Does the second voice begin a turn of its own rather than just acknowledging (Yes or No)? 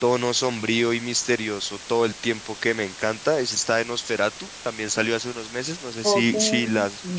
Yes